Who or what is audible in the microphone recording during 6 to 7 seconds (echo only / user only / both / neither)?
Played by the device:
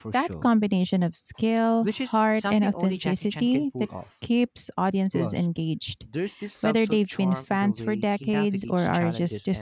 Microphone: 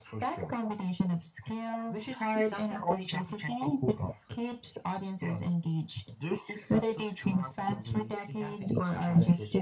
echo only